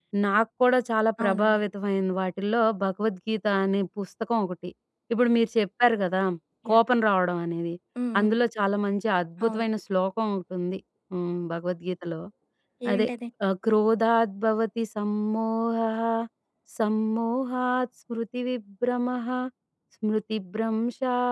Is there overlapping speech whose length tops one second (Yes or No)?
No